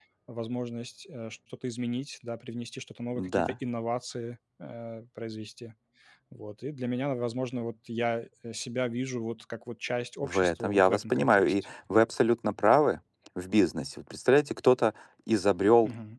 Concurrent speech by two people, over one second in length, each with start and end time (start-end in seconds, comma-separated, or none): 10.2-11.5